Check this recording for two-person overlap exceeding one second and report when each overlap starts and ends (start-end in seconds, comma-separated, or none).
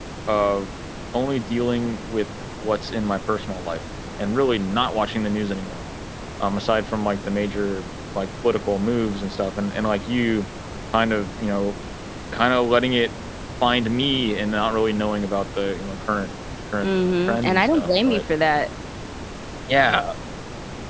16.8-18.2